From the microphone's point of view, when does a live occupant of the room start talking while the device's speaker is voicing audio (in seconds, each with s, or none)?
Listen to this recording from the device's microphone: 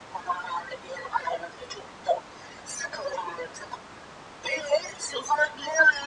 none